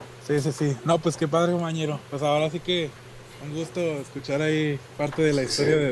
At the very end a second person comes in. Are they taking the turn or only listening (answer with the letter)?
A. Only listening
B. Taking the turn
A